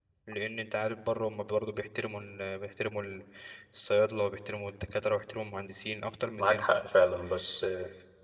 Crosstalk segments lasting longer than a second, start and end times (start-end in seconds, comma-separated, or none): none